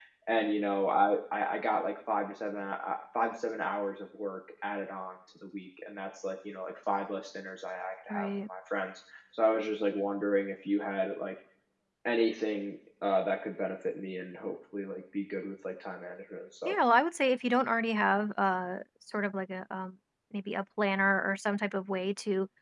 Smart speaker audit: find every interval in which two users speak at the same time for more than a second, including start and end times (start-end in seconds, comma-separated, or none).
none